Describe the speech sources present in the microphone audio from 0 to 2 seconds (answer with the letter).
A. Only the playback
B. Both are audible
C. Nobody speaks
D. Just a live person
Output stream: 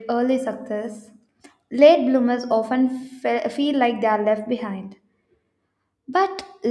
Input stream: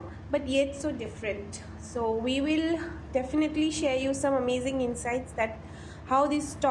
D